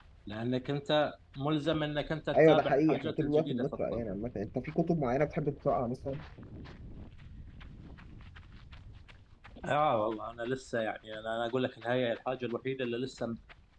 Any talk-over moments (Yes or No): Yes